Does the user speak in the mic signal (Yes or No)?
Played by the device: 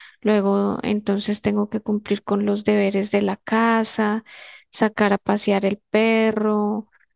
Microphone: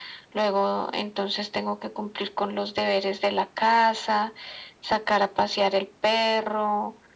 No